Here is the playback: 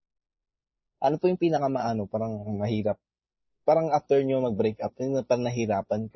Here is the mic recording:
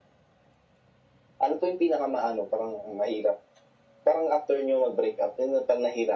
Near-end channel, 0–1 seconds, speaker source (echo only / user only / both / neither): neither